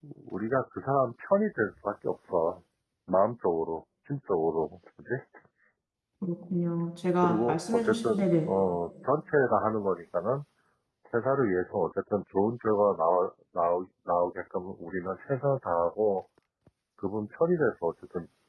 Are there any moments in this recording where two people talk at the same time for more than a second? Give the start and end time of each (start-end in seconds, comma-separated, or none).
7.2-8.5